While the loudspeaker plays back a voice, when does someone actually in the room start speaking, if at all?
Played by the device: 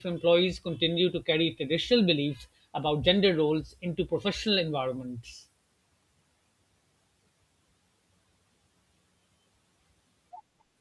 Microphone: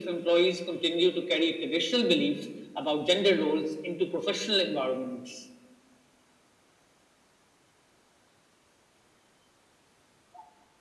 none

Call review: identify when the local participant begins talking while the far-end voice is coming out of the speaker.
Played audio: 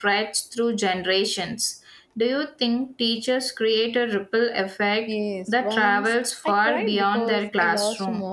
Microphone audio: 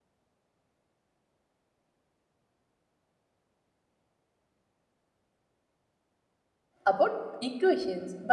6.8 s

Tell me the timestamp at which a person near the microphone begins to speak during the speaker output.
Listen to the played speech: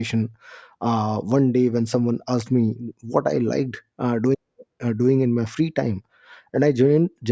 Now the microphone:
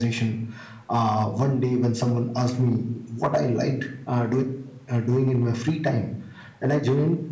none

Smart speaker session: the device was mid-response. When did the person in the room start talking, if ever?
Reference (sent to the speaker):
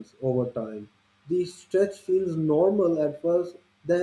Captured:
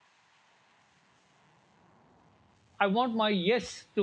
2.8 s

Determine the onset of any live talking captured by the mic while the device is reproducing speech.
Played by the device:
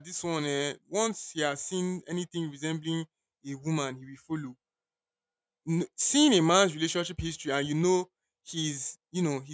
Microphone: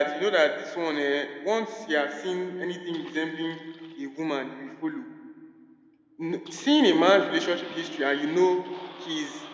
none

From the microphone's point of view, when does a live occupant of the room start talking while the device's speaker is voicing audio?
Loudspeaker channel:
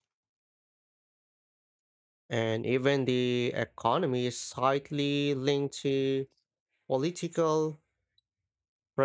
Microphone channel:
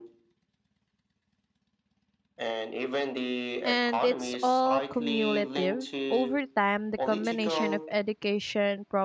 3.6 s

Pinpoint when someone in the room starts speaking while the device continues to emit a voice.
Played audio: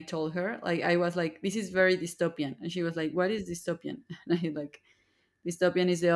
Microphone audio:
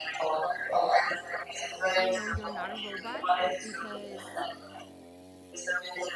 1.9 s

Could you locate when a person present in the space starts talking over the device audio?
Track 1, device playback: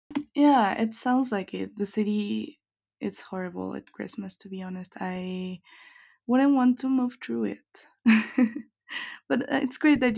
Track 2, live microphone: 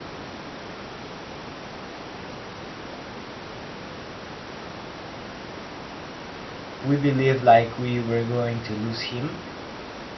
6.8 s

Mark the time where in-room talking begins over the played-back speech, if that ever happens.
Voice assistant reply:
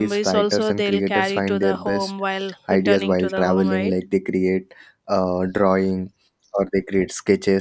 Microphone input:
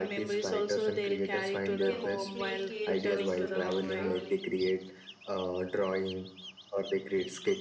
1.7 s

